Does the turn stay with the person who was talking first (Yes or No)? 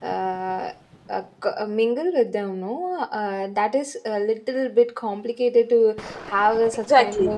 No